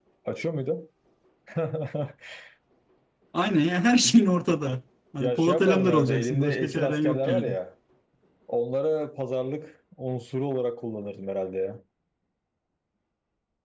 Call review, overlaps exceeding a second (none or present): present